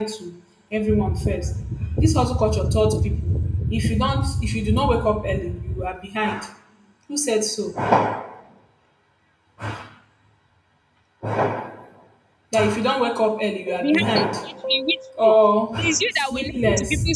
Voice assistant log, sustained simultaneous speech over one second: present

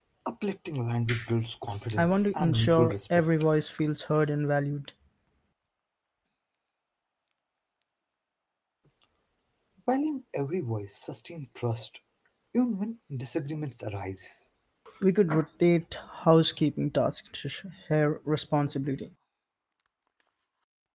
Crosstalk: present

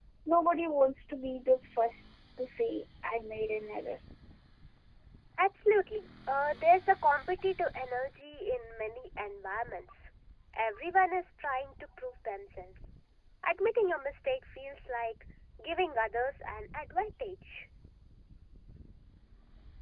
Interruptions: none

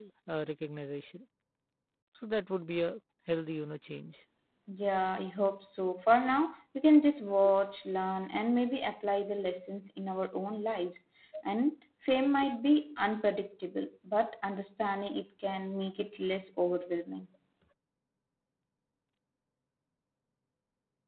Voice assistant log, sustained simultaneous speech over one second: none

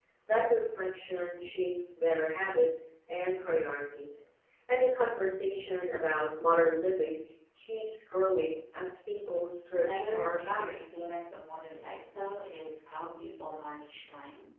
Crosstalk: present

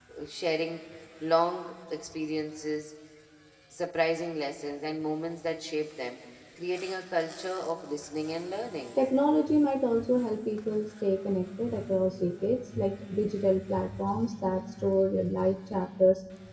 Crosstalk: none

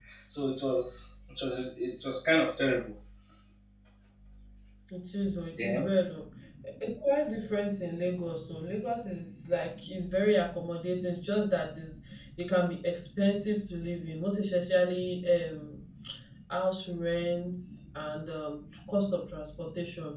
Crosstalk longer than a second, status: none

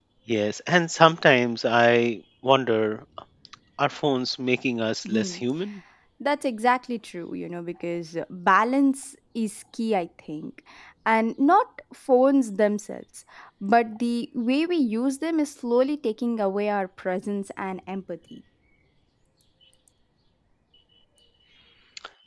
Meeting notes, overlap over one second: none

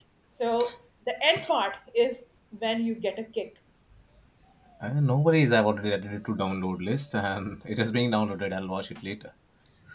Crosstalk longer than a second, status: none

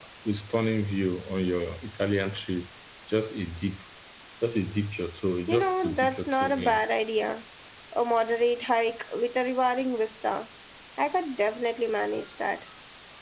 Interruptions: present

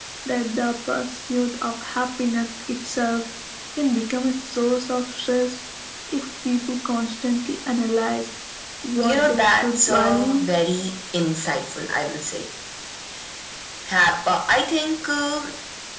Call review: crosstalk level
present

